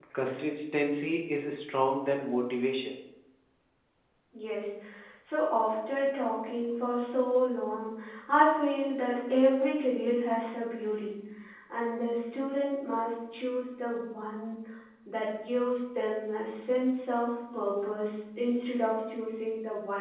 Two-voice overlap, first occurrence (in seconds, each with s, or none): none